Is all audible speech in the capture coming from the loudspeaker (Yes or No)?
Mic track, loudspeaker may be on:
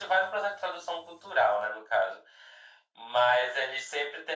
Yes